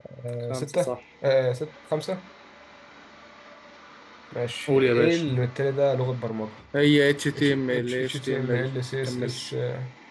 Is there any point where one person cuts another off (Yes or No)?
Yes